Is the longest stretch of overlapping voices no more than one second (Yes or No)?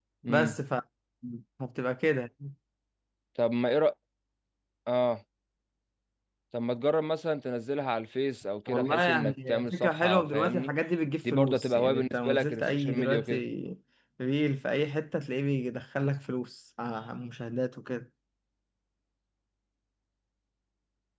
No